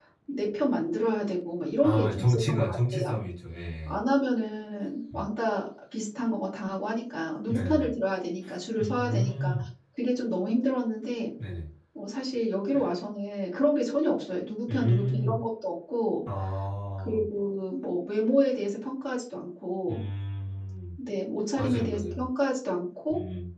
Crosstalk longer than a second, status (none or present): present